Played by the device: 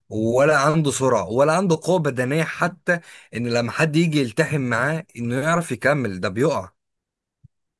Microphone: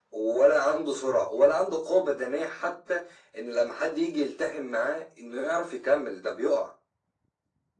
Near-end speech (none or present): none